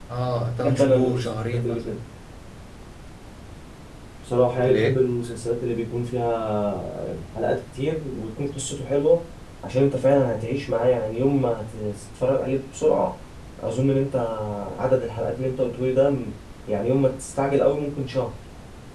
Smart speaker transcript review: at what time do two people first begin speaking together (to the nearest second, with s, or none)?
1 s